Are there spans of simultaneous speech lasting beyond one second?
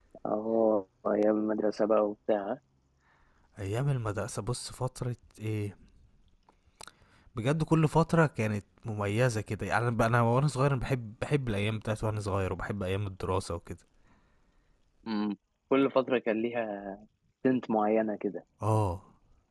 No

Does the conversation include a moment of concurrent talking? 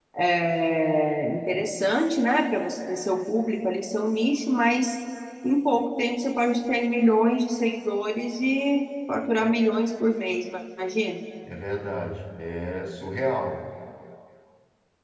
No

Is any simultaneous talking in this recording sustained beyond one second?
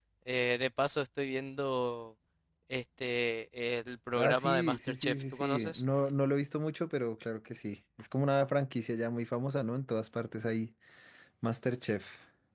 Yes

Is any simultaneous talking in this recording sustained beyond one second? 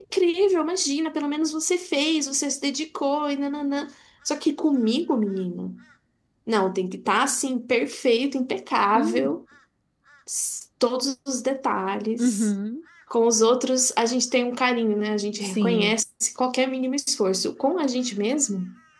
No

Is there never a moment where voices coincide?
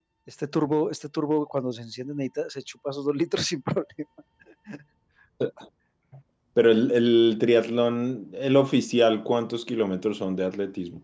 Yes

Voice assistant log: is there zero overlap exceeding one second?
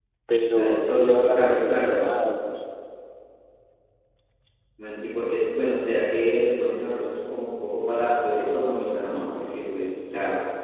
No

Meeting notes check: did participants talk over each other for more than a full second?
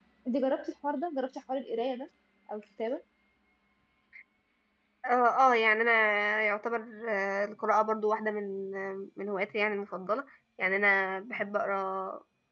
No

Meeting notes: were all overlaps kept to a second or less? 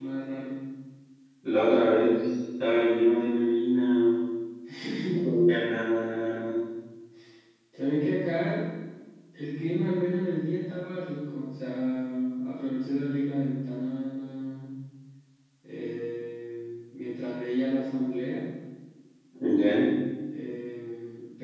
Yes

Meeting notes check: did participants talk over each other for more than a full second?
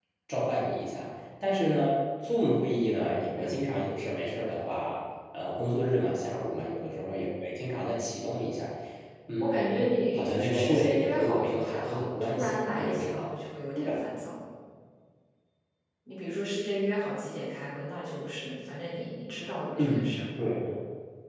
Yes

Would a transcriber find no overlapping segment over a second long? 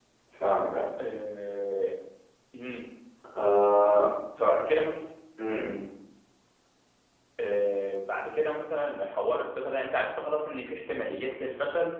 Yes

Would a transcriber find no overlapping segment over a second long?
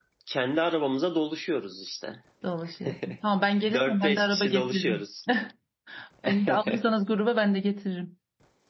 No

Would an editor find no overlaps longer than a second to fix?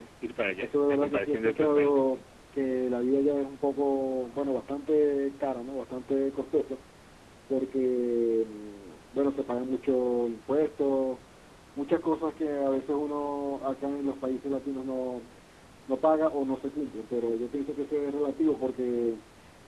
No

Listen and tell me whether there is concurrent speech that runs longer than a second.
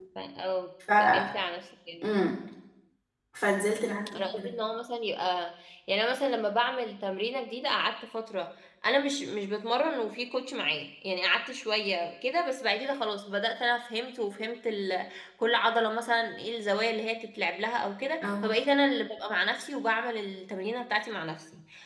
No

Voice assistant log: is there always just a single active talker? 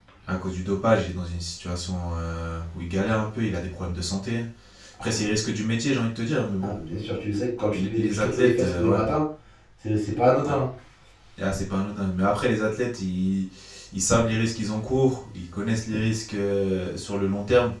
No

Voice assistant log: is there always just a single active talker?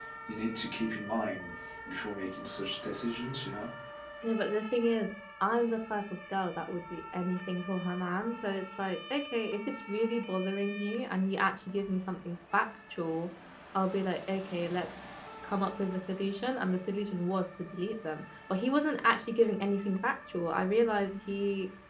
Yes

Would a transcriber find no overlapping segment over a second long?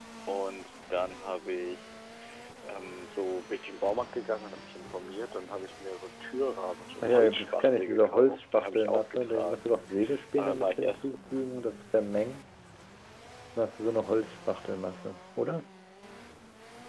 No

